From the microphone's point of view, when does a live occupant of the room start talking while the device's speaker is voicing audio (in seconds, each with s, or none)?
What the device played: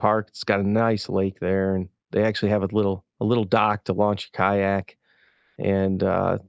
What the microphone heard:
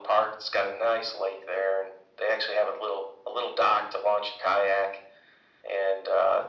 none